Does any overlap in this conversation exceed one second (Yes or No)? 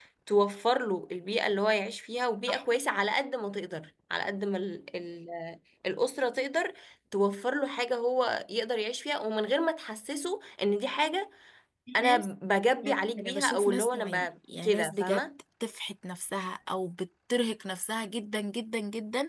Yes